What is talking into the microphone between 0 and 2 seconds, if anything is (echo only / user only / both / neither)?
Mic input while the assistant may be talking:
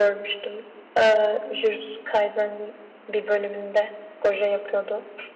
user only